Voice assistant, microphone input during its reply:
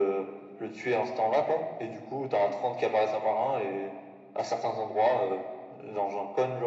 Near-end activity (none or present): none